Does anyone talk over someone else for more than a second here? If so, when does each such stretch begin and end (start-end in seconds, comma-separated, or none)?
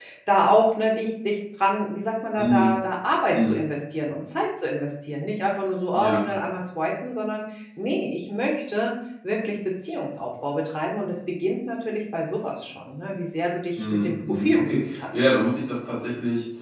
13.8-15.3